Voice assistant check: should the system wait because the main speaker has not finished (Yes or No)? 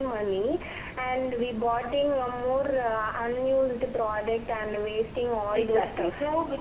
No